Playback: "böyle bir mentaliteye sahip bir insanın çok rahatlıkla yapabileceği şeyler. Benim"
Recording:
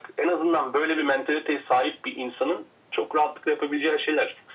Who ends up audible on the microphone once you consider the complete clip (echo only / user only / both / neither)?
echo only